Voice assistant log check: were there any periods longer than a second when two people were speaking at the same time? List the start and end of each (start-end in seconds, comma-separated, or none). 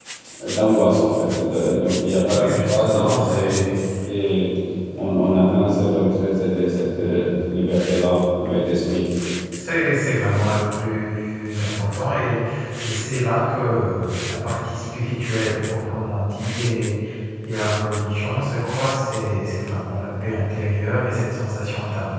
2.3-3.7